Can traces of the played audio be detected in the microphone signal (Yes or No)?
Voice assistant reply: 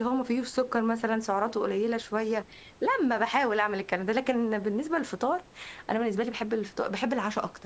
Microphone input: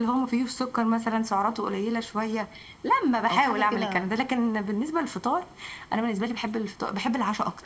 Yes